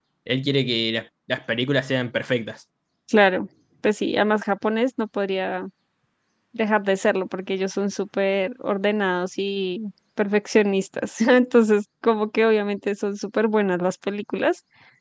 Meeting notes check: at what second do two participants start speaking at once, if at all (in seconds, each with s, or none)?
none